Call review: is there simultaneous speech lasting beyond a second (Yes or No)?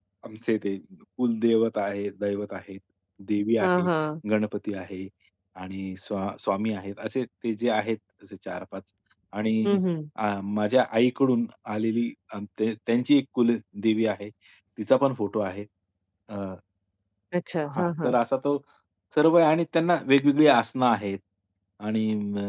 No